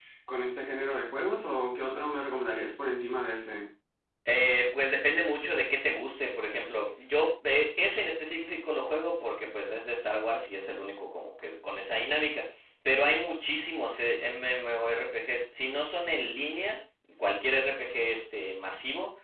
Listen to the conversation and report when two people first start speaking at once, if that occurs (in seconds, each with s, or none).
none